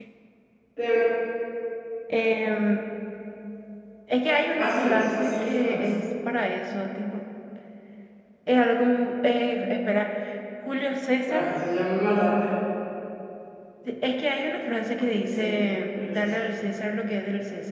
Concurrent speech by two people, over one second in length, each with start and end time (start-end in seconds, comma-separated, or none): 4.6-5.9